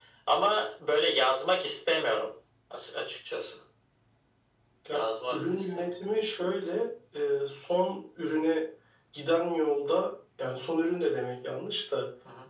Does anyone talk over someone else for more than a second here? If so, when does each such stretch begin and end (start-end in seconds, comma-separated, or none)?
4.9-6.2